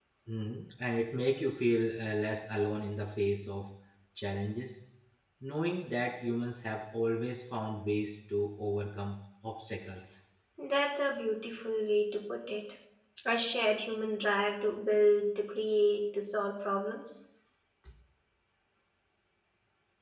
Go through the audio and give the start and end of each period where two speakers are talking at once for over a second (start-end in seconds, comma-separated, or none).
none